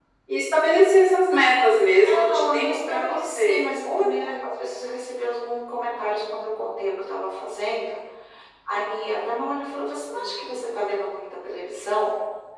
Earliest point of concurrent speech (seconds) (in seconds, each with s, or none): 2.0 s